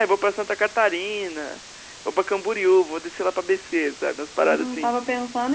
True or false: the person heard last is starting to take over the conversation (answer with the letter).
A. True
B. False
A